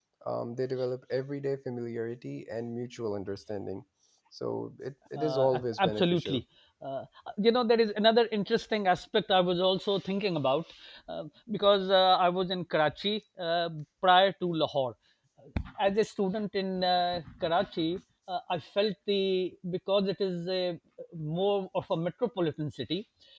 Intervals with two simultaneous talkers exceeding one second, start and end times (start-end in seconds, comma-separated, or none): 5.2-6.4